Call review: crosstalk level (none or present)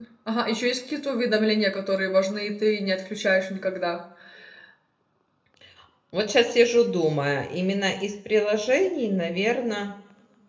none